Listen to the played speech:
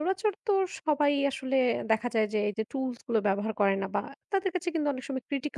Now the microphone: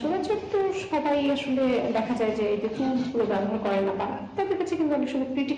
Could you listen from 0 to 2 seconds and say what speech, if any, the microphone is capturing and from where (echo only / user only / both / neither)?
echo only